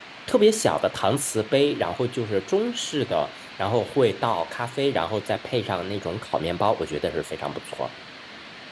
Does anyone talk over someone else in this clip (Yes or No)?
No